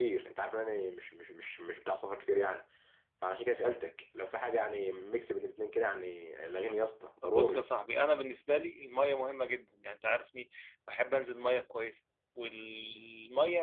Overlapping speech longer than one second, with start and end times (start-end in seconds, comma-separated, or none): none